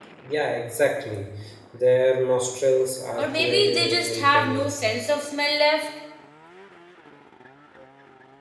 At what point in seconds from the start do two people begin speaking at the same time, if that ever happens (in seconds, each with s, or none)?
3.2 s